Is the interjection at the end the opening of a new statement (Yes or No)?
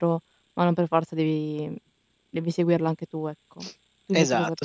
Yes